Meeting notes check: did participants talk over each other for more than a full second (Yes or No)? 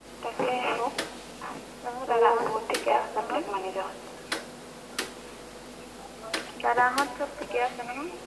Yes